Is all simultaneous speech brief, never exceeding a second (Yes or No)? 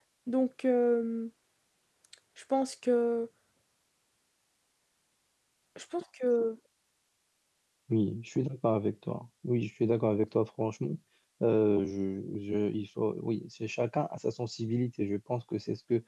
Yes